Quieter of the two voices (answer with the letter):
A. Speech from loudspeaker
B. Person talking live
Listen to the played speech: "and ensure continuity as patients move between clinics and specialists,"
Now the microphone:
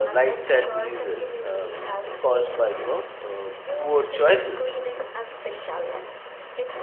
A